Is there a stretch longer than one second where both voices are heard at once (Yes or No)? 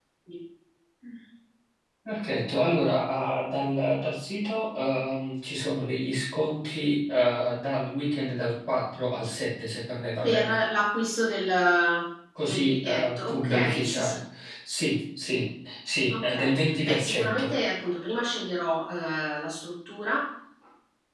Yes